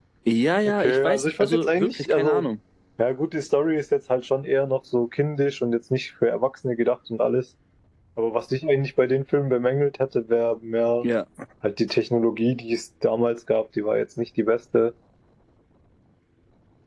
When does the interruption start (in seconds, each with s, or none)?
0.6 s